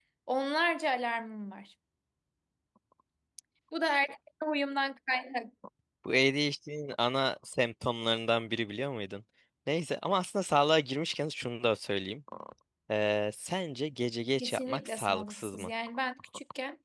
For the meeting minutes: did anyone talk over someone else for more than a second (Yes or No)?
Yes